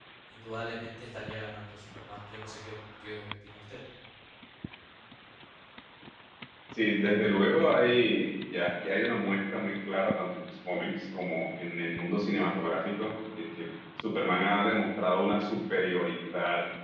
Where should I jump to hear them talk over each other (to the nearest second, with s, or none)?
none